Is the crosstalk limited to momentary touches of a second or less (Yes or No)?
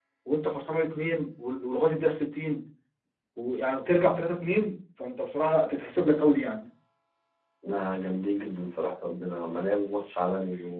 Yes